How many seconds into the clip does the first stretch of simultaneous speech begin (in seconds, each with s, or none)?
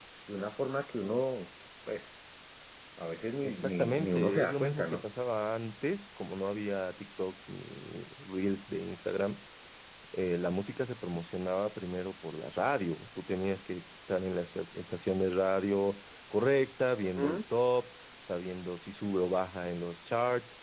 3.4 s